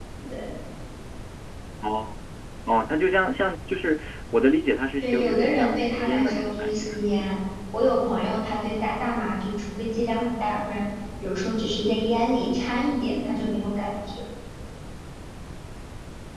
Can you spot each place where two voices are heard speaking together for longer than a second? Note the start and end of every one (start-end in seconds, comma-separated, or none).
5.0-7.2